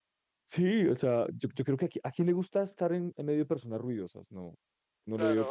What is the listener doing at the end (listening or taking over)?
taking over